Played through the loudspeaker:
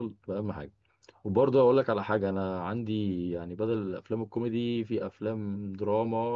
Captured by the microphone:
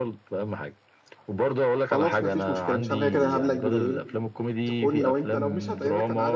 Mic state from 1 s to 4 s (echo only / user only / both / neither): both